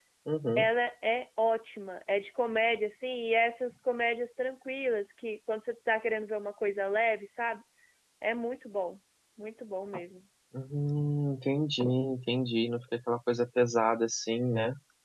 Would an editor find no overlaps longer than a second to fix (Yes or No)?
Yes